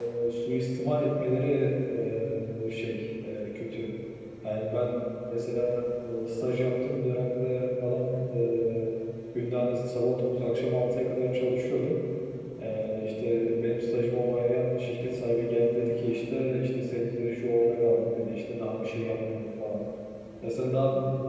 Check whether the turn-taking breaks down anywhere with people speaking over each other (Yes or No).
No